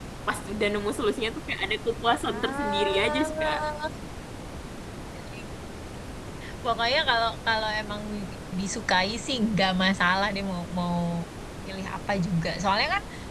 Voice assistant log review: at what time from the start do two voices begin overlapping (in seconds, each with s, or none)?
2.2 s